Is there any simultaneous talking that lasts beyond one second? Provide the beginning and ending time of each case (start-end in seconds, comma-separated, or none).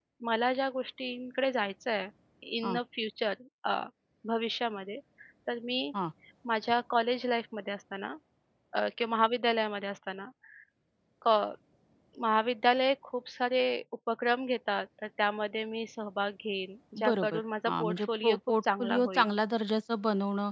17.1-19.3